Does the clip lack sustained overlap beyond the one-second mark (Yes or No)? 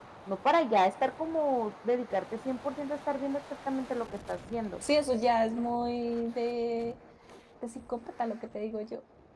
Yes